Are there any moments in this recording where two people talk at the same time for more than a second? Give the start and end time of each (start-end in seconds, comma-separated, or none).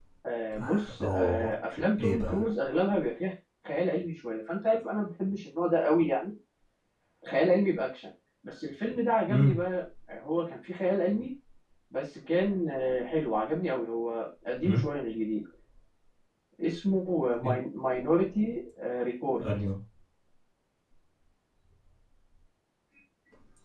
none